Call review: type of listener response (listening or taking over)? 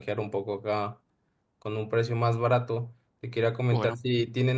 listening